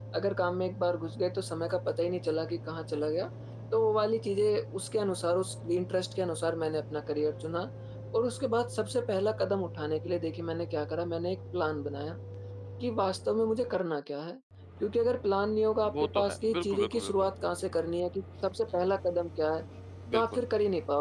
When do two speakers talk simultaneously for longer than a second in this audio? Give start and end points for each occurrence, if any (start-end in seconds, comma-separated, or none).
16.0-17.3